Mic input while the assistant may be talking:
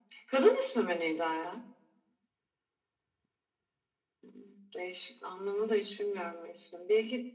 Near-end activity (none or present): none